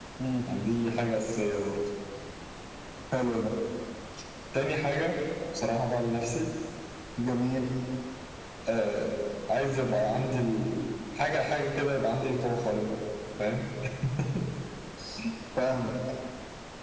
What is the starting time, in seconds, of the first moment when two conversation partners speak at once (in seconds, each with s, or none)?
none